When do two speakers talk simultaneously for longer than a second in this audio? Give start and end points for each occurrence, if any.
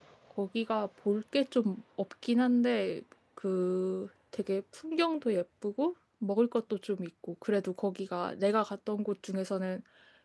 none

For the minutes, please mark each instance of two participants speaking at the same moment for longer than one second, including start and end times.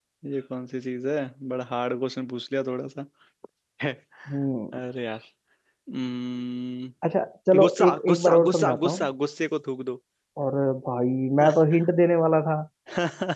7.6-9.1

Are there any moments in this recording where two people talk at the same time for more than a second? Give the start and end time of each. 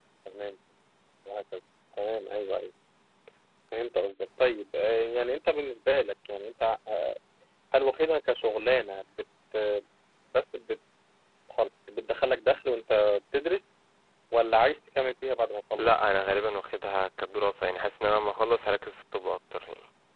none

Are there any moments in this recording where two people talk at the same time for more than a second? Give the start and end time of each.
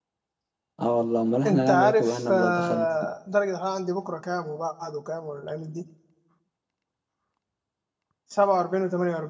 1.4-2.9

